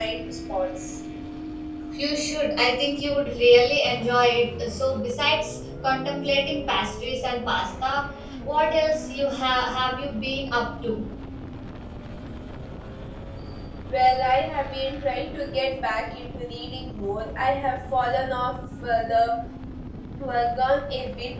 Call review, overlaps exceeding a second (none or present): none